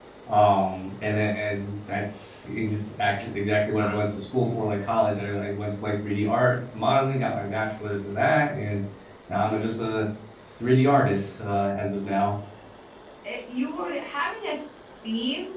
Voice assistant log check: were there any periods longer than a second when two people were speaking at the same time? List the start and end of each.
none

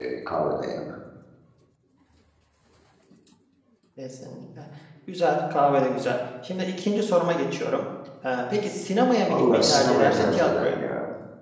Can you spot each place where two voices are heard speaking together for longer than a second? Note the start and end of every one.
9.3-10.8

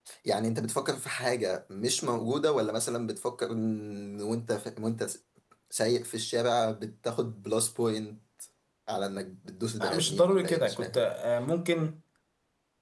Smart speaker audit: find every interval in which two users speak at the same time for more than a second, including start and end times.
9.8-11.0

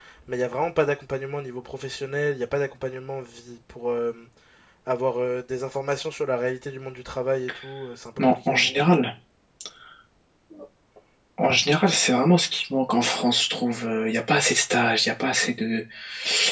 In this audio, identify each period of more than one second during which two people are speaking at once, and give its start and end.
none

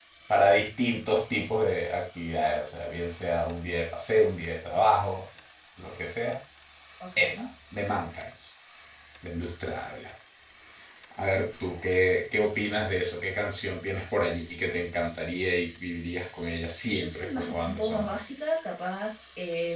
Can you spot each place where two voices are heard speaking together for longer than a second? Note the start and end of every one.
16.9-18.1

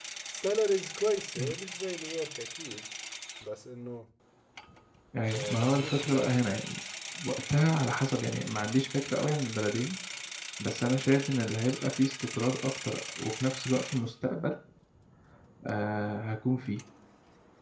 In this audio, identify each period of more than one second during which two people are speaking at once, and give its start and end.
5.3-6.5

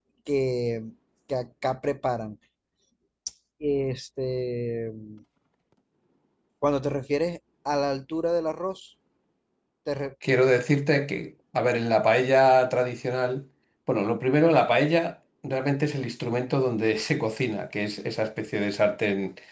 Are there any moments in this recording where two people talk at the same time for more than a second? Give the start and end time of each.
none

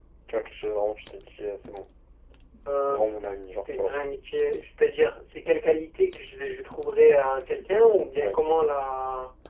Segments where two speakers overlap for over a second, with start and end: none

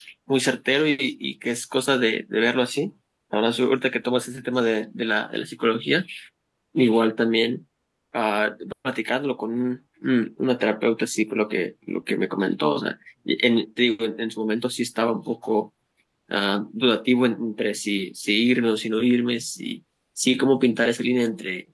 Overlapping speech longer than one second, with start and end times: none

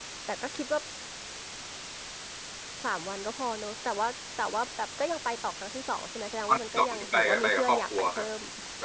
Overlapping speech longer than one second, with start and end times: 6.5-8.3

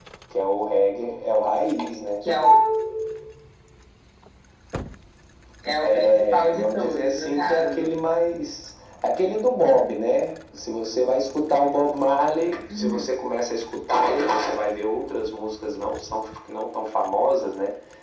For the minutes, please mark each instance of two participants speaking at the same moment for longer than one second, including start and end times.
6.1-7.9

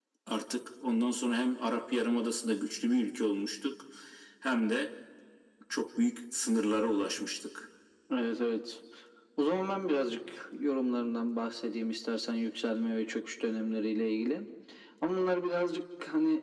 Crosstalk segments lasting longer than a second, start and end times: none

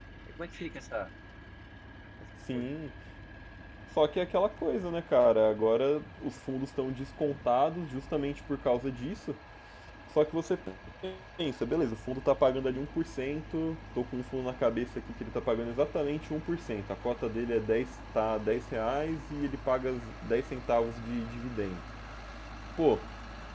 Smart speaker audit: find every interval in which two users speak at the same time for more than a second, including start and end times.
none

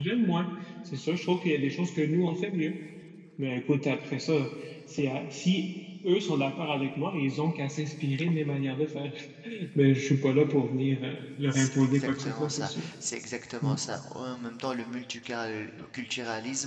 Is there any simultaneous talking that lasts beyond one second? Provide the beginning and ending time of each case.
11.5-12.9

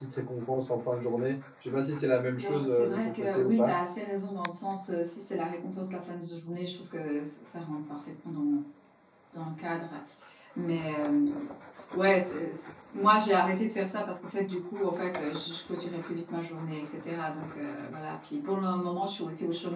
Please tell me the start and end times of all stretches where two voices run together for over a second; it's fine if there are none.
2.4-3.7

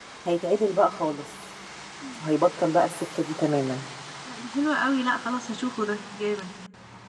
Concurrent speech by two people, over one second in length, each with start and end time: none

